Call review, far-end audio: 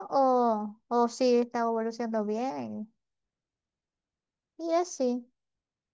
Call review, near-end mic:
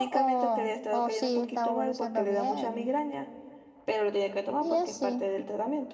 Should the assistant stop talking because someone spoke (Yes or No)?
Yes